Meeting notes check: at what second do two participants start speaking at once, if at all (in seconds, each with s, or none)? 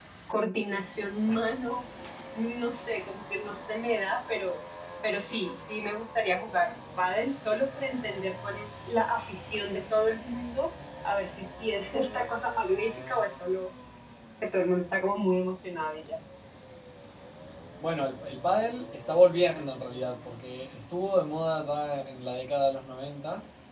none